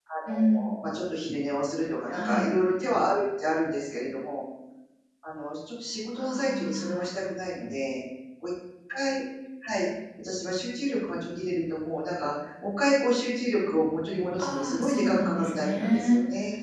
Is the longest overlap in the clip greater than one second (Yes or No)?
Yes